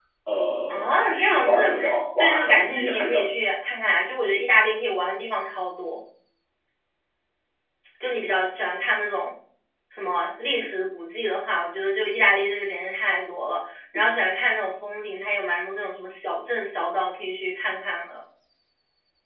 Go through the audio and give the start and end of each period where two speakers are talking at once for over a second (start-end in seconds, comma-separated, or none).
0.7-3.3